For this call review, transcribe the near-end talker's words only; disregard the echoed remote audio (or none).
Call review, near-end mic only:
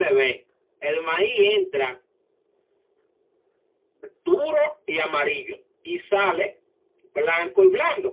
none